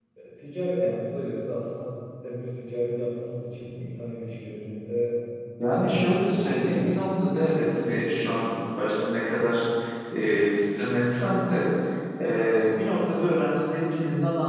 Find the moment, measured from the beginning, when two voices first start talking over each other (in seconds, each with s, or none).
5.7 s